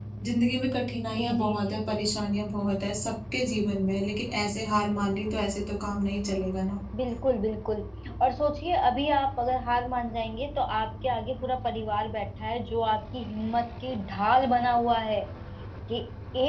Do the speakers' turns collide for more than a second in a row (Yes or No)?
No